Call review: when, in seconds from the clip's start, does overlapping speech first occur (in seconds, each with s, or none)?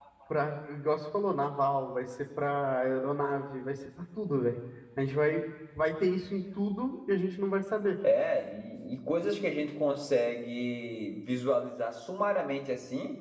none